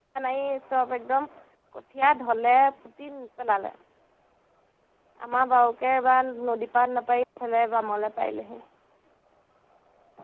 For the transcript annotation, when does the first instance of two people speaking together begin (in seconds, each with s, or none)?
none